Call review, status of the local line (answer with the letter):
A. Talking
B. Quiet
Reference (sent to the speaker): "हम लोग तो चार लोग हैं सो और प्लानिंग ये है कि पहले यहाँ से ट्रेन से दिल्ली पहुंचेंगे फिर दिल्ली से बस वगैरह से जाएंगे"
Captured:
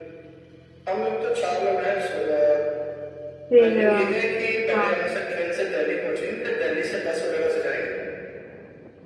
A